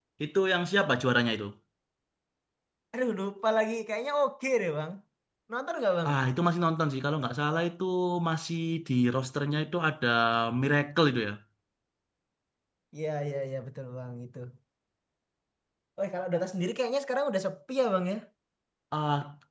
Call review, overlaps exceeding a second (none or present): none